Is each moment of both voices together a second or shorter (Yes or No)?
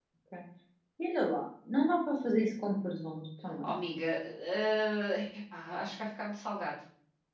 Yes